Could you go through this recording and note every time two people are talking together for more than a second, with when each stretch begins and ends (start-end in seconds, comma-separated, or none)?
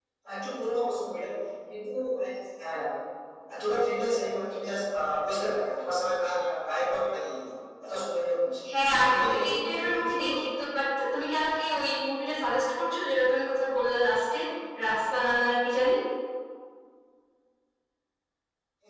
9.1-10.4